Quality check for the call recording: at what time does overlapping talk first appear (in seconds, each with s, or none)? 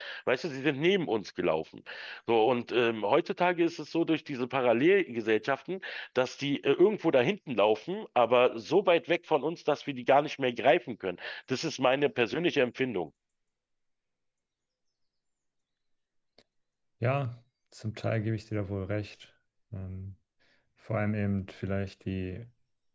none